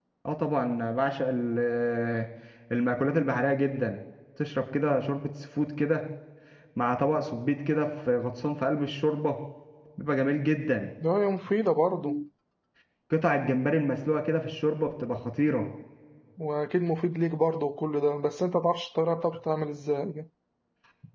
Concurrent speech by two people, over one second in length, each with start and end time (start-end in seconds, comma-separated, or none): none